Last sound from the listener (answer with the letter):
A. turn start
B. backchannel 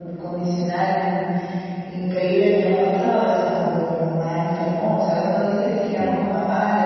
B